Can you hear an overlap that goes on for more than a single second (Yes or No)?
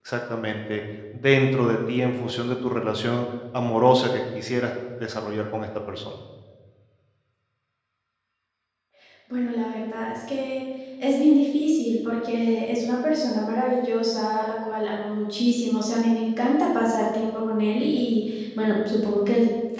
No